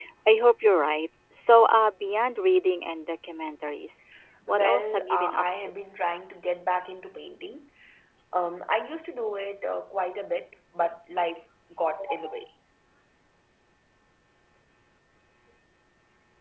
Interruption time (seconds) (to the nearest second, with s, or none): 4 s